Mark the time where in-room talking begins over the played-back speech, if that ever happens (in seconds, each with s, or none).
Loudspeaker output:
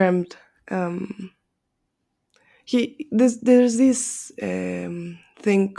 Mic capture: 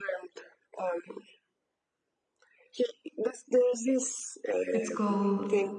4.7 s